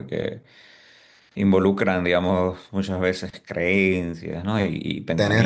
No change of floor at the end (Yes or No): Yes